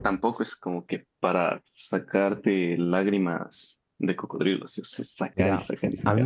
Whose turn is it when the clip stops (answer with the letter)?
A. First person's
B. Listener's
B